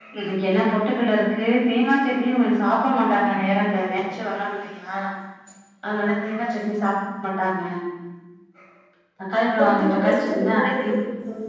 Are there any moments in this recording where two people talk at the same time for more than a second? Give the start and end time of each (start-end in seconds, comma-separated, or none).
9.6-10.9